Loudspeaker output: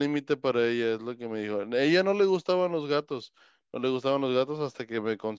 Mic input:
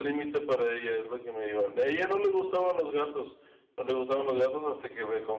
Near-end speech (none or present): none